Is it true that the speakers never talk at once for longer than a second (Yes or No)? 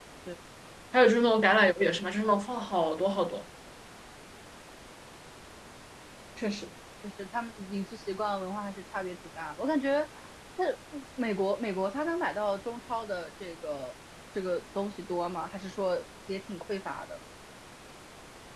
Yes